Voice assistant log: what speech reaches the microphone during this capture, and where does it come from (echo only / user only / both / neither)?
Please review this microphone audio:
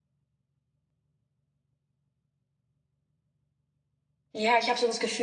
user only